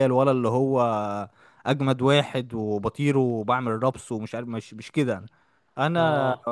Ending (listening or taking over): listening